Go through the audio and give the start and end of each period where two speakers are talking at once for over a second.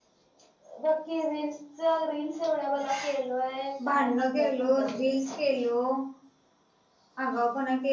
3.9-5.3

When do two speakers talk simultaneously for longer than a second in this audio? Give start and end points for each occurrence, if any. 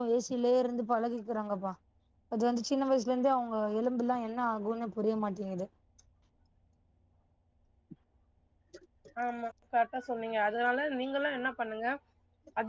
none

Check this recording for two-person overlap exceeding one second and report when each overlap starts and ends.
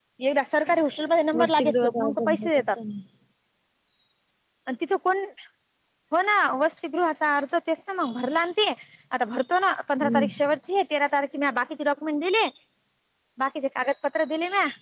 1.4-2.7

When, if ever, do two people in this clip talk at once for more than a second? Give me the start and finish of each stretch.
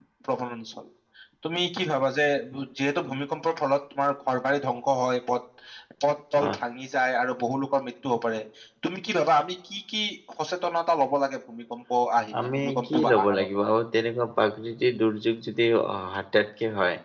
12.4-13.6

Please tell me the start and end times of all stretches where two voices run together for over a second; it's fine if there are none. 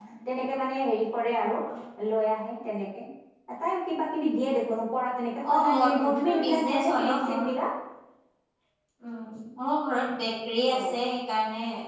5.5-7.4

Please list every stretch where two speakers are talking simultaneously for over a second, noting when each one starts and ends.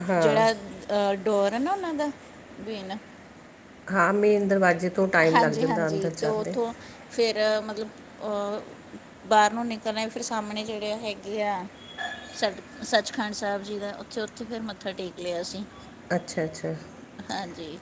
5.3-6.5

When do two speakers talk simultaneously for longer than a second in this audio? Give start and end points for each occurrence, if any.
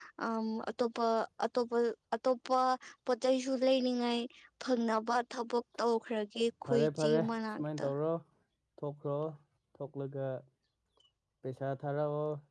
6.6-7.8

